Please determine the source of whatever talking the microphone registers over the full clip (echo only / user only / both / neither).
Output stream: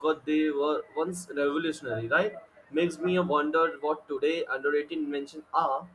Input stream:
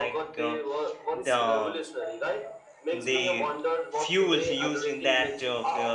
both